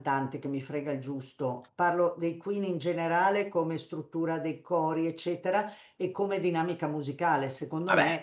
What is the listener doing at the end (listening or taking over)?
listening